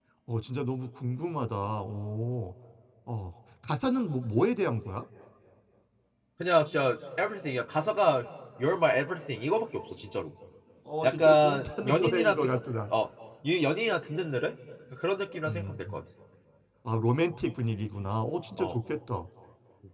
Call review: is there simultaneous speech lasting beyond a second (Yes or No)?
Yes